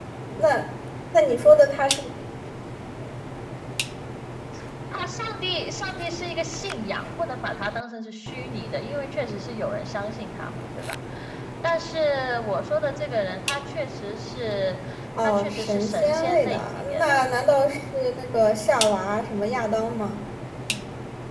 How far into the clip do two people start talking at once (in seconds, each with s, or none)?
15.2 s